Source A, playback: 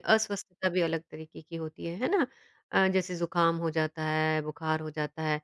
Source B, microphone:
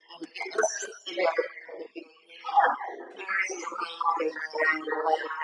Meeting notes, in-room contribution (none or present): none